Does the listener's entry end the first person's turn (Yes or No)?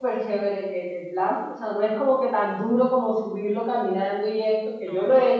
No